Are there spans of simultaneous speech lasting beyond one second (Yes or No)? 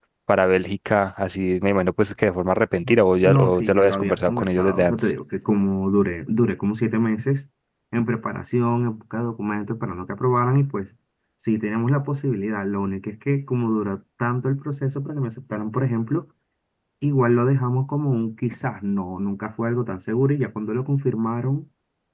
Yes